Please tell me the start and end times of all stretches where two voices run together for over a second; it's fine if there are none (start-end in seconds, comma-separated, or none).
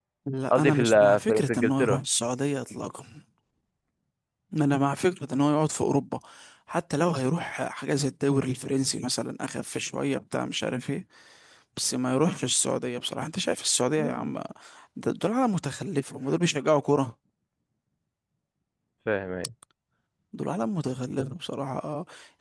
0.5-2.0